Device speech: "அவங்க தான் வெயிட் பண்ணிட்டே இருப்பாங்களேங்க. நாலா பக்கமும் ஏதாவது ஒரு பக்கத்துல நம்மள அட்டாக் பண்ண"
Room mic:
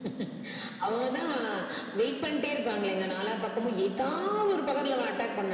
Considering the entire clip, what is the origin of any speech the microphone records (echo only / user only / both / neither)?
echo only